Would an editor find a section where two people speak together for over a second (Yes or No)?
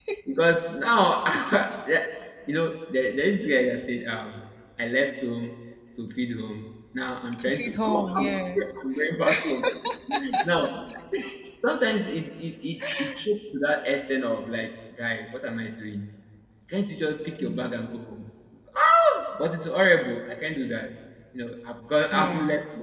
Yes